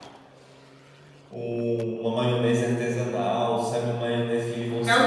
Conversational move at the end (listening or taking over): taking over